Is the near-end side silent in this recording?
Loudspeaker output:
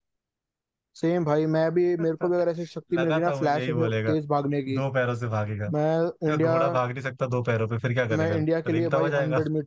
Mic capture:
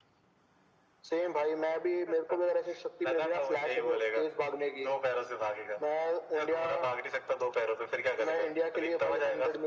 Yes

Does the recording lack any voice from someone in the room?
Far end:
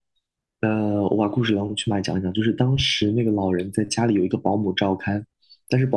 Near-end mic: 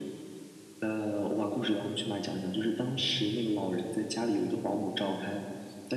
Yes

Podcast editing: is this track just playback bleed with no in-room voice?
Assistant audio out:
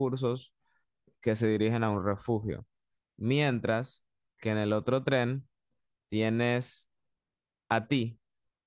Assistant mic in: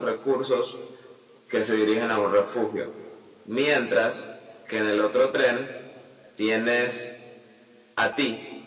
Yes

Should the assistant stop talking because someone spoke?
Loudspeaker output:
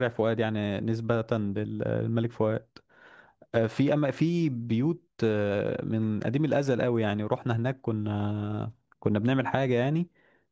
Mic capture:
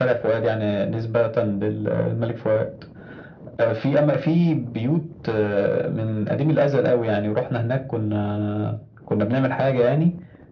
No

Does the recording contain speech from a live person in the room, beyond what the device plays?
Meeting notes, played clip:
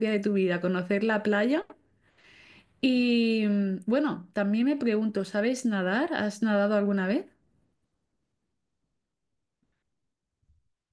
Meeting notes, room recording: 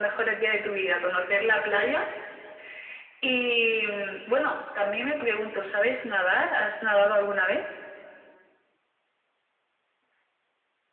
No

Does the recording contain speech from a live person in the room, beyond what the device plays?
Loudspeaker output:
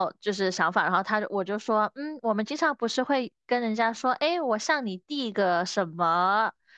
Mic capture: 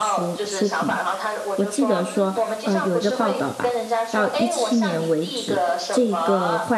Yes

